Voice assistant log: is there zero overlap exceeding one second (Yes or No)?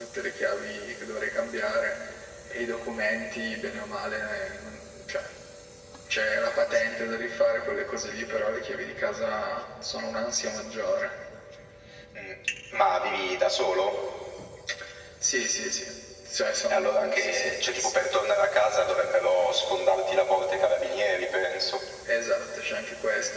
No